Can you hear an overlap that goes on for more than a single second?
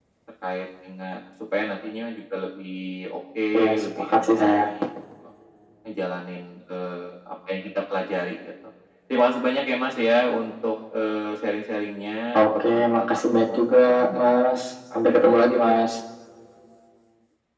Yes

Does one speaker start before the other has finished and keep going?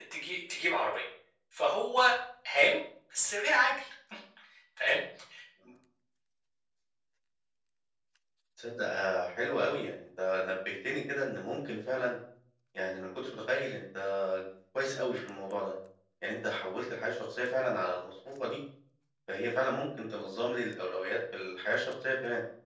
No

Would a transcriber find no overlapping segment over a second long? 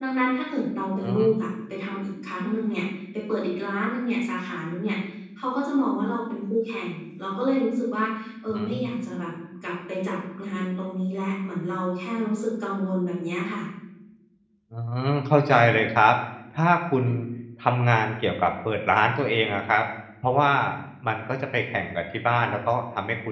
Yes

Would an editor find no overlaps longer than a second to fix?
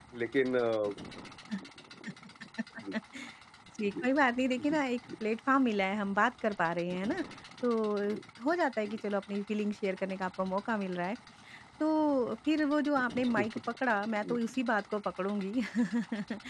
Yes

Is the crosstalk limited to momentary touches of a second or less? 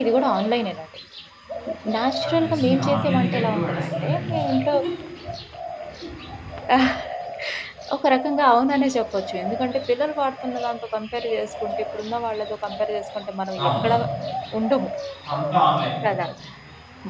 No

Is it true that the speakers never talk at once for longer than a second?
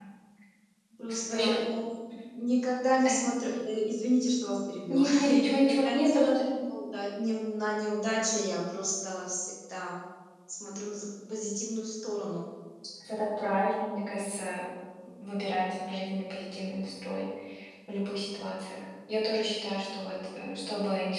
No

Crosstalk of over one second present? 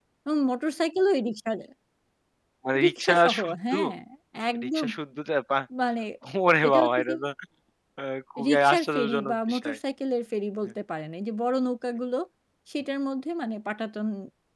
Yes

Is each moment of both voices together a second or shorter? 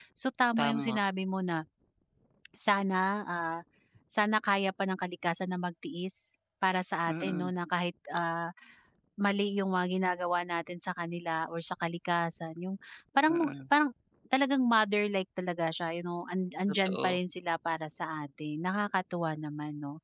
Yes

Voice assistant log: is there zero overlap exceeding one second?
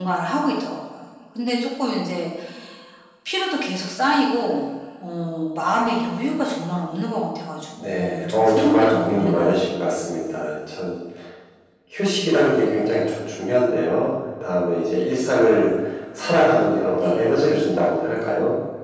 No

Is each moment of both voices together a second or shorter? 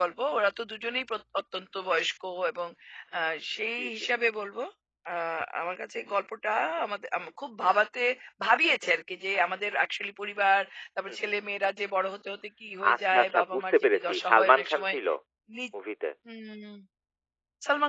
No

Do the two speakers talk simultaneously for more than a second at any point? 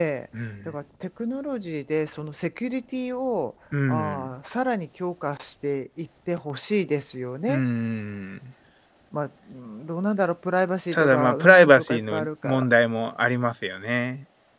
Yes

